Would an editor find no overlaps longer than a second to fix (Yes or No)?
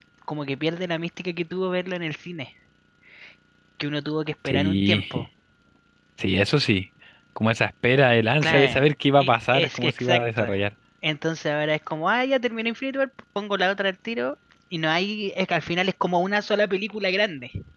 No